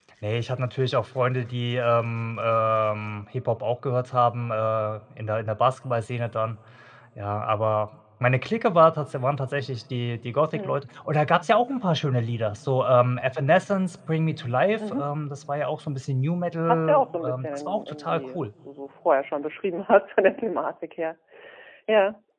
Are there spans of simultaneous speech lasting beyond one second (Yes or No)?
Yes